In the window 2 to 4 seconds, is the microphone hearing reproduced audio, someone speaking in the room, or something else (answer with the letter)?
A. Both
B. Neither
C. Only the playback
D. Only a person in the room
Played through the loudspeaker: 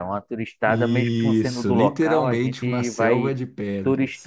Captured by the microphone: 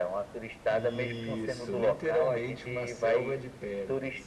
C